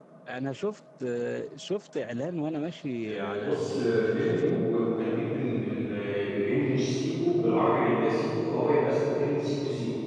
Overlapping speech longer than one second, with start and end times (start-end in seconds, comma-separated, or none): 3.0-4.7